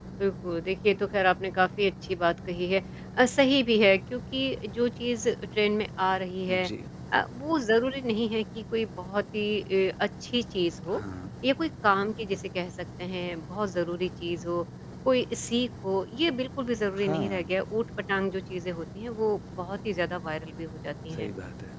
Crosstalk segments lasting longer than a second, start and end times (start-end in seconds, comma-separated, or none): none